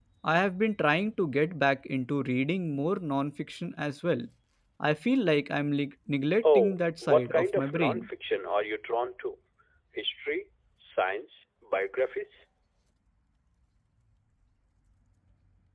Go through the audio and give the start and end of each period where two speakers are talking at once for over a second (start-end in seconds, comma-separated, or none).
6.4-8.0